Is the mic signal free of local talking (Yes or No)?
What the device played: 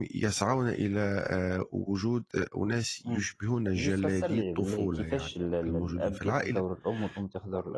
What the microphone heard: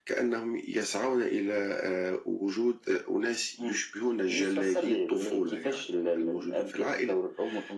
Yes